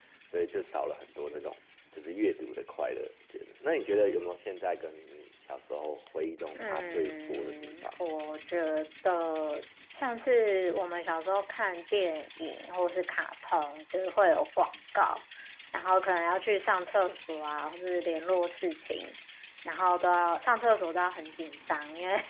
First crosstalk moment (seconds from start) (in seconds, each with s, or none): 6.6 s